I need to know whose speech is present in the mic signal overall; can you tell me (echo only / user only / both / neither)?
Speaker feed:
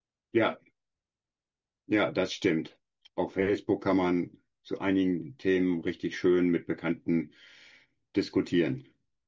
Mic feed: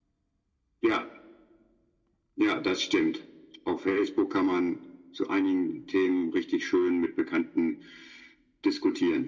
echo only